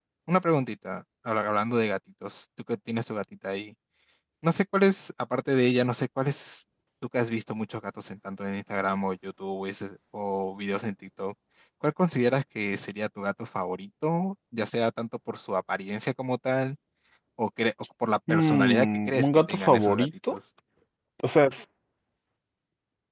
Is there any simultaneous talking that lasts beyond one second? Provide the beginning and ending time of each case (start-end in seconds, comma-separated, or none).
18.3-20.4